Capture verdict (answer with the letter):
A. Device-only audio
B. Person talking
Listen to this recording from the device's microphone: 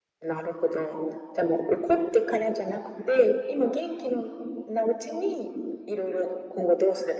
A